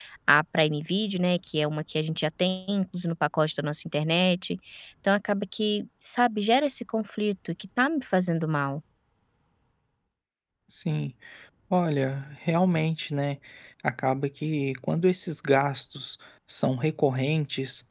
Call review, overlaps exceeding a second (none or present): none